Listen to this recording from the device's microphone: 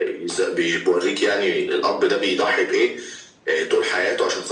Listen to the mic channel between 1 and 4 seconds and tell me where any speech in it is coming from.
echo only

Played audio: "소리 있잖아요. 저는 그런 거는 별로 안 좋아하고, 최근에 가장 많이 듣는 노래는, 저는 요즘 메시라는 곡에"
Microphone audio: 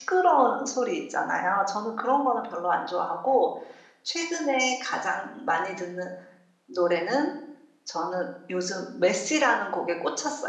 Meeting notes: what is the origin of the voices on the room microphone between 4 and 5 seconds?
echo only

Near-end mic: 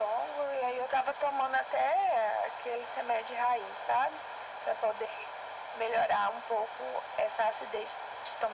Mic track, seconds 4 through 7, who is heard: echo only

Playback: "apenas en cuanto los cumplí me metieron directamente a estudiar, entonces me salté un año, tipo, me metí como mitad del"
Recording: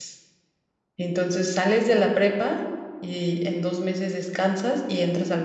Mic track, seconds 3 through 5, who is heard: user only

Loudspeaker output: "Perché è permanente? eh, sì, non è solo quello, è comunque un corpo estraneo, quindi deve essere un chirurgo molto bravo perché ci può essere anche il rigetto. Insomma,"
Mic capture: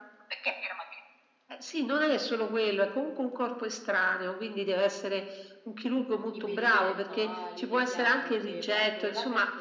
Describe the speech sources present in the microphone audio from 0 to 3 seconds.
echo only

